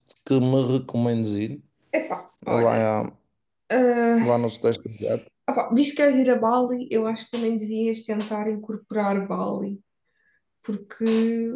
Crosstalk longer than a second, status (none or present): none